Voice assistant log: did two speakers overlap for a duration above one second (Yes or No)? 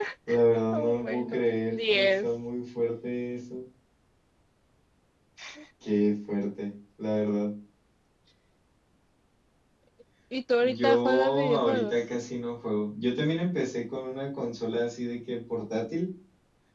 Yes